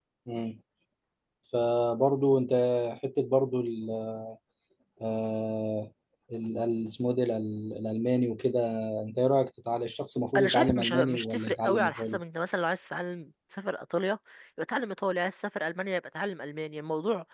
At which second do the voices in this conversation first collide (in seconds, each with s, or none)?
10.4 s